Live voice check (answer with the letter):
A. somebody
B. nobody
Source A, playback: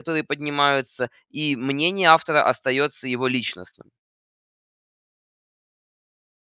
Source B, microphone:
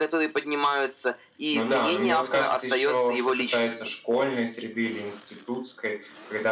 A